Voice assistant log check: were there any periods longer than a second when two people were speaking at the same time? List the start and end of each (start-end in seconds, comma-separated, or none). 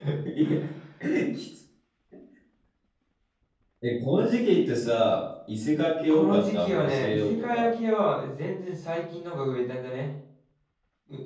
6.1-7.7